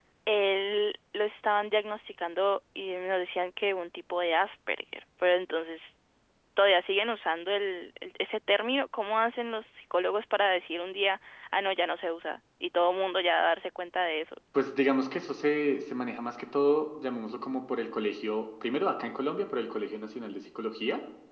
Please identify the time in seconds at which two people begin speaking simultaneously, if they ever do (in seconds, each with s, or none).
none